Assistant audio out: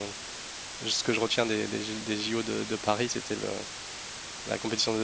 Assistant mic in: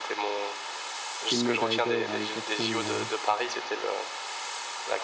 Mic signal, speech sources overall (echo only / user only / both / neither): both